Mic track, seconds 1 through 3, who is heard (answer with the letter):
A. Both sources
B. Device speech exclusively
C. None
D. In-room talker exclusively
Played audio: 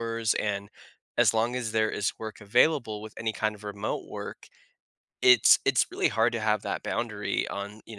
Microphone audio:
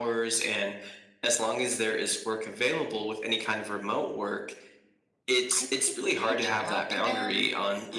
B